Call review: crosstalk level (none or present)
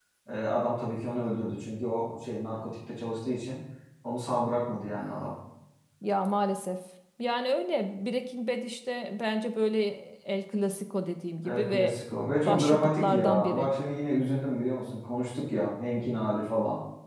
present